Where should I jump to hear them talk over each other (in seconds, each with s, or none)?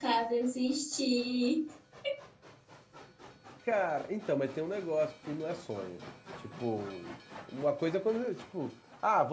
none